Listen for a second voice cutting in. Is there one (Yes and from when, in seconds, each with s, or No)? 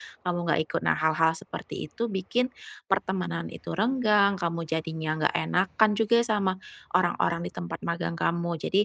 No